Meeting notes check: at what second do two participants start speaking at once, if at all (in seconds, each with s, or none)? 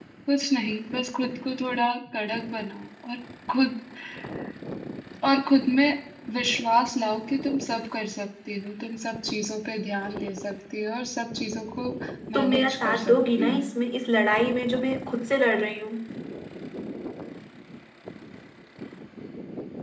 12.3 s